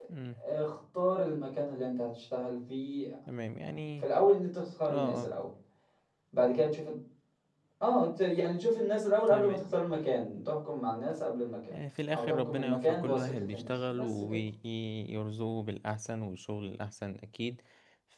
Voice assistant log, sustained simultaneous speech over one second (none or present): present